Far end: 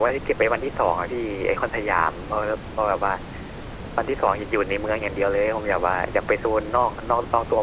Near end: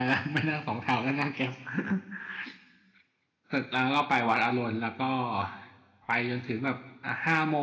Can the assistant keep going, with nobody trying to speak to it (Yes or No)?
No